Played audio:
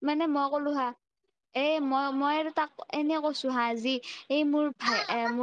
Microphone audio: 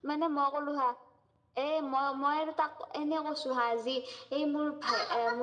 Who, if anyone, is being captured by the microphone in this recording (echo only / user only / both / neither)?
echo only